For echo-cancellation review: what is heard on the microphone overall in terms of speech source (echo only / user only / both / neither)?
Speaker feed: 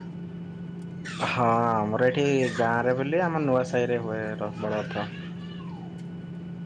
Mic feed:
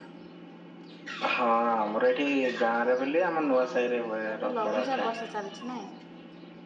both